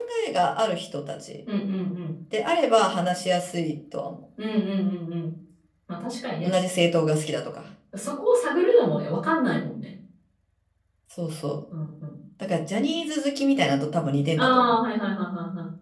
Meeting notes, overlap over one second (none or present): none